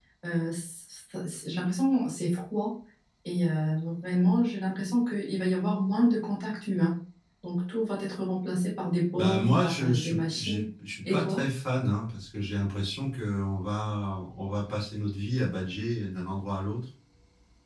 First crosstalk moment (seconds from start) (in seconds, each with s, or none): 9.2 s